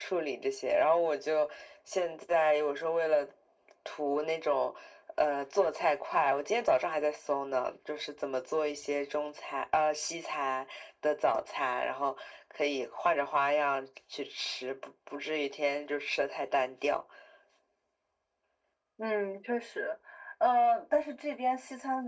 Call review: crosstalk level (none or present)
none